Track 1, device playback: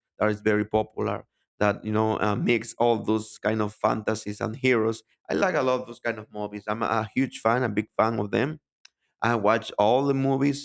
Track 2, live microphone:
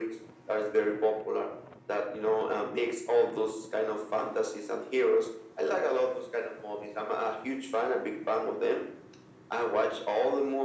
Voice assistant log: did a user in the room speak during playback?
No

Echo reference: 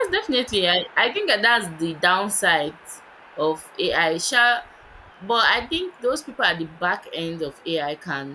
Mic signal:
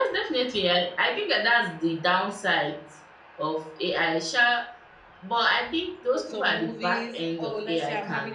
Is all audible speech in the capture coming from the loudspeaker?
No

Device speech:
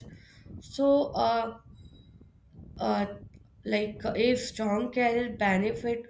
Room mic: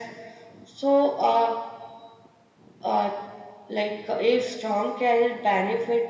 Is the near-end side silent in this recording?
Yes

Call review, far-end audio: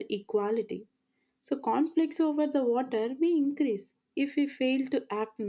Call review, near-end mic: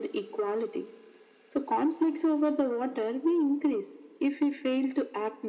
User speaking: No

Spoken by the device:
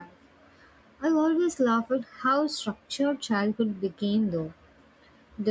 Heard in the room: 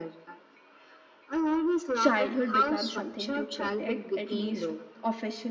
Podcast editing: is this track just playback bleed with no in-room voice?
No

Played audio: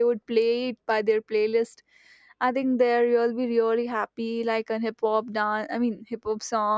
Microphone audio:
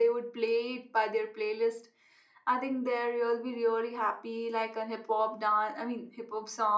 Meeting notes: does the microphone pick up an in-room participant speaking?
No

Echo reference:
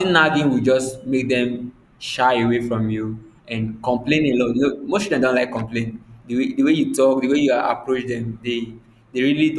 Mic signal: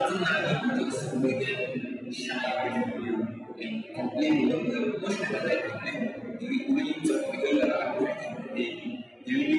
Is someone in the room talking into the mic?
No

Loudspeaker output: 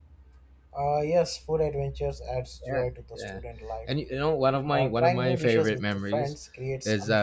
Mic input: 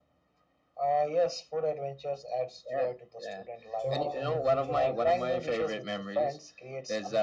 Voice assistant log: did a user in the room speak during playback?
Yes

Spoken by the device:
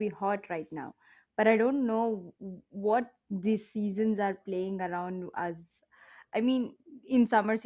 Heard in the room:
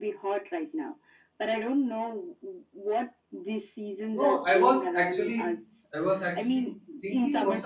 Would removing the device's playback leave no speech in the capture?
No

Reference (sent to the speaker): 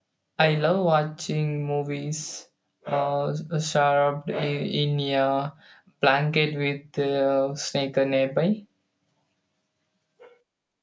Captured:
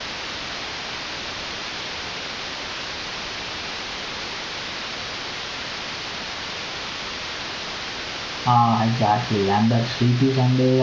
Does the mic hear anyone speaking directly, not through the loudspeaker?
Yes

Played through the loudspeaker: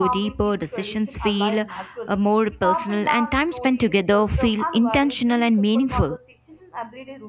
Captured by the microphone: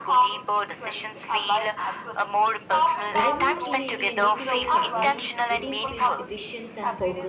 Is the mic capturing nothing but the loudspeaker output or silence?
No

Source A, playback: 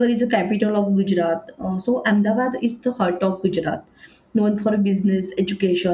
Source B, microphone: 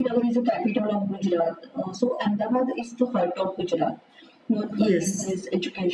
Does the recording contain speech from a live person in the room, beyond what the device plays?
Yes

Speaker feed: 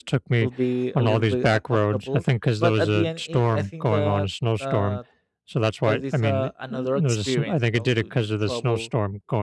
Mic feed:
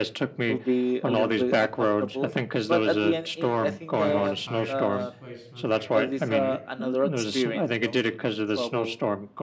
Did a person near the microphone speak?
Yes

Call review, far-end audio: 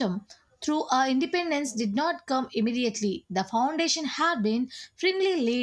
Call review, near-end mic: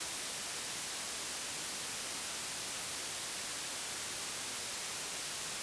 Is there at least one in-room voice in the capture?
No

